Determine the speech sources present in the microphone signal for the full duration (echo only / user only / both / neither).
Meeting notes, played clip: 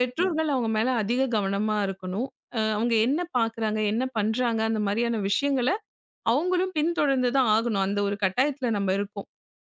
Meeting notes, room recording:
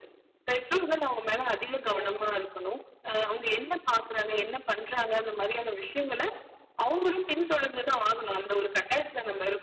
both